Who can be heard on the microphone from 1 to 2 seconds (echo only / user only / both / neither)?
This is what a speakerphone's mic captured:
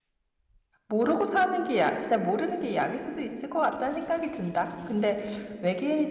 user only